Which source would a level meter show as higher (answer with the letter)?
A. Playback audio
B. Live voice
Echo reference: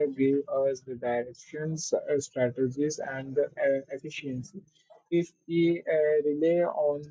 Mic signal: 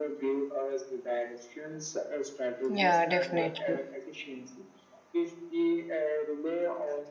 B